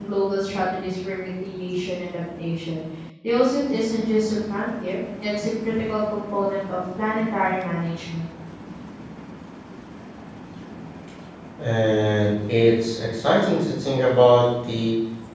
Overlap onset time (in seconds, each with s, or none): none